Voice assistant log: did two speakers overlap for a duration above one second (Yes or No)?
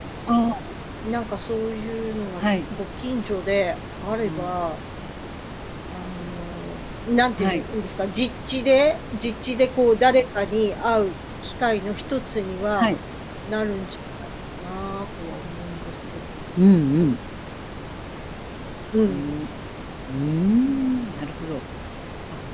No